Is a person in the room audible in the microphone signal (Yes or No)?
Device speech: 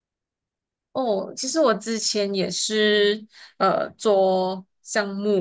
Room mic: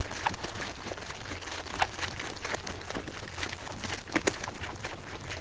No